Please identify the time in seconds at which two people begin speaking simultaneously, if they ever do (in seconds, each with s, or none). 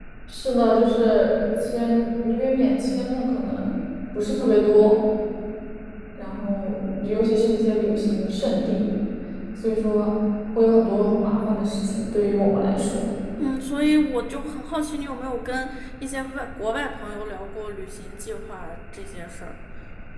none